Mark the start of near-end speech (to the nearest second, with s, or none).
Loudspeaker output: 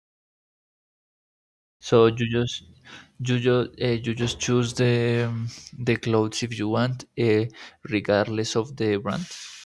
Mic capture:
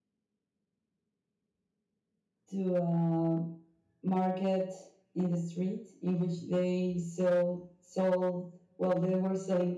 2 s